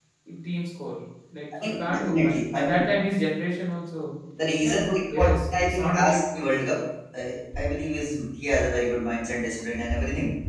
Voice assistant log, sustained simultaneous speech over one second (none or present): present